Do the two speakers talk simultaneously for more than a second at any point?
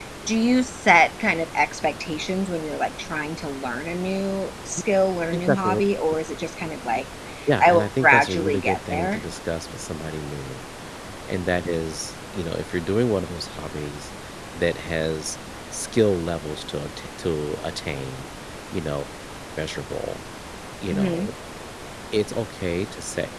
Yes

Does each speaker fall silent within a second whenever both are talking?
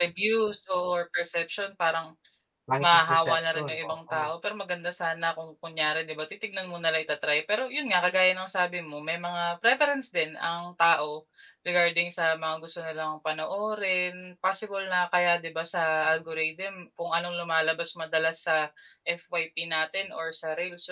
No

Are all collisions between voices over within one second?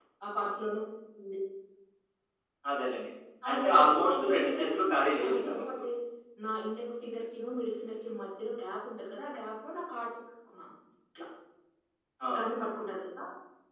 No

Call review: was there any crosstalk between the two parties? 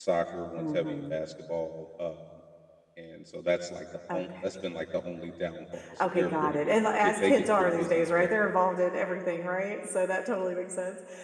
Yes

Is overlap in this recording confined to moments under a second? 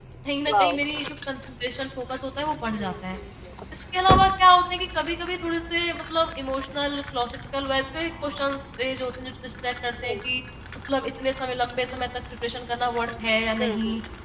Yes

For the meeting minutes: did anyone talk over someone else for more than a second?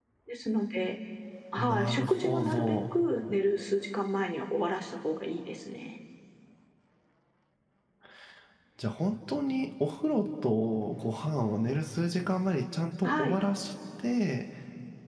Yes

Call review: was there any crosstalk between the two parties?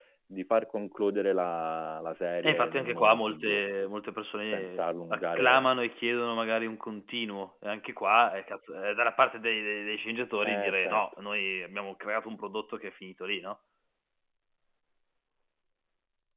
Yes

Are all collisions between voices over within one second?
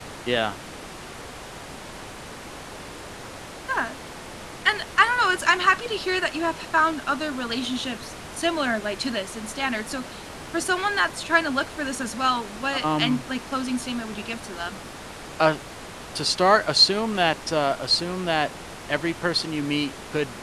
Yes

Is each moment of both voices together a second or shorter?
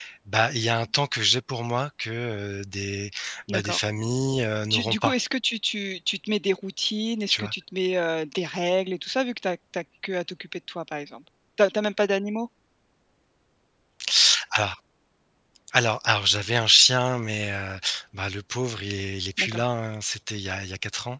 Yes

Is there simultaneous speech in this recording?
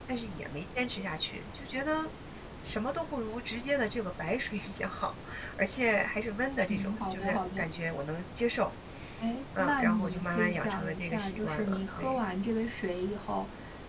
Yes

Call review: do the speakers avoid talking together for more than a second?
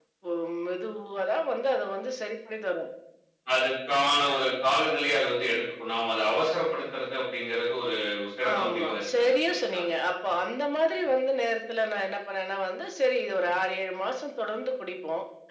No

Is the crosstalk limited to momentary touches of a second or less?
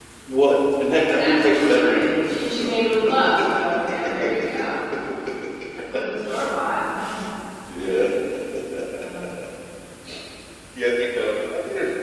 No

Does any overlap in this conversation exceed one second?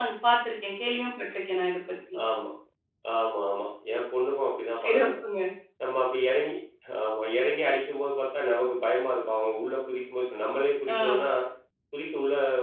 No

